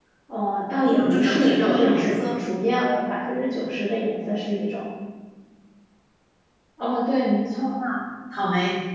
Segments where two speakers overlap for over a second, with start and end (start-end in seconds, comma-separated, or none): 0.8-2.4